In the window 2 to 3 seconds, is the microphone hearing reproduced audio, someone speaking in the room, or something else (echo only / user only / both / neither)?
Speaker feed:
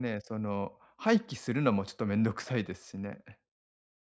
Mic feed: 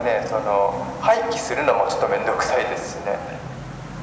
echo only